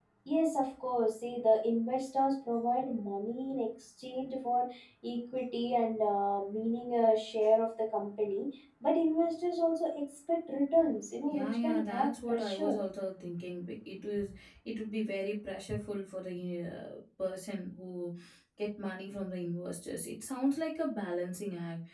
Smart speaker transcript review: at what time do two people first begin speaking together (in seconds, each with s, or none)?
11.3 s